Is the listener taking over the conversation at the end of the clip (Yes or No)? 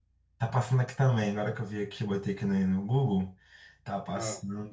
No